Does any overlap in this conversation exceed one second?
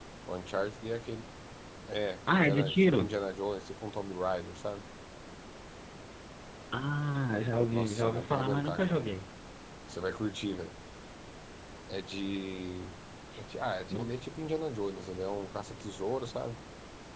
Yes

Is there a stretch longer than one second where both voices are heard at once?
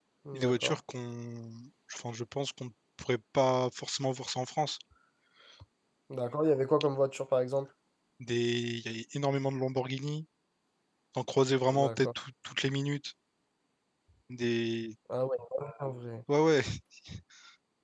No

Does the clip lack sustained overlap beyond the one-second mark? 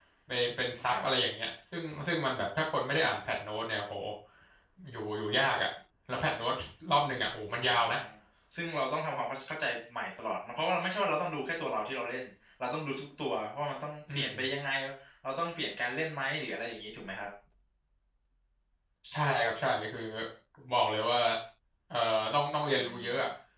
Yes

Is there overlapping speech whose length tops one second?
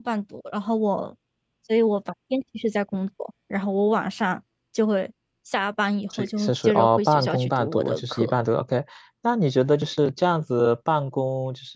Yes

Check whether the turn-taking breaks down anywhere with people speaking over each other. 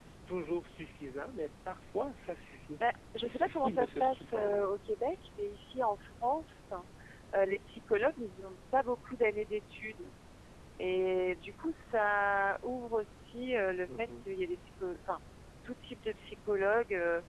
Yes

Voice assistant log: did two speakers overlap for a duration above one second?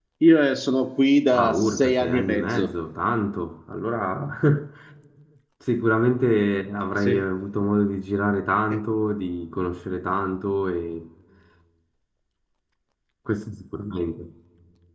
Yes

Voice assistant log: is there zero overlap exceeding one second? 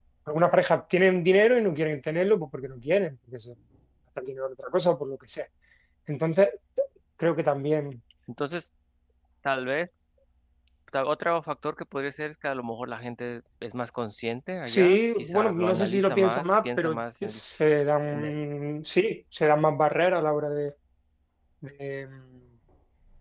No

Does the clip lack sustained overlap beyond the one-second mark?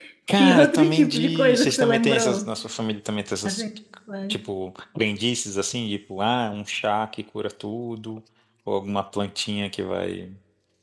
No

